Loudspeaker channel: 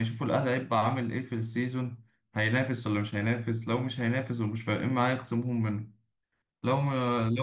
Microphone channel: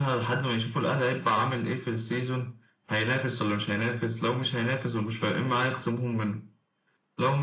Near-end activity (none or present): none